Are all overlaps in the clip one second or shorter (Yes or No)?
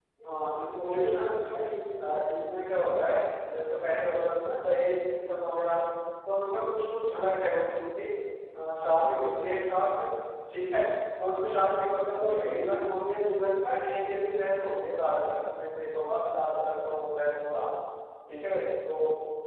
Yes